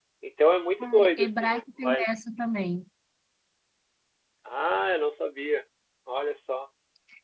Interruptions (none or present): present